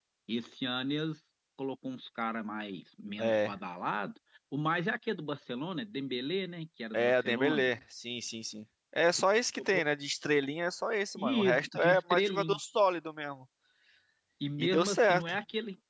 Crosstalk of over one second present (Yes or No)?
Yes